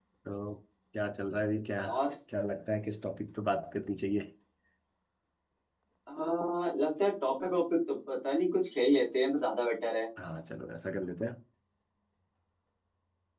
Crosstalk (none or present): none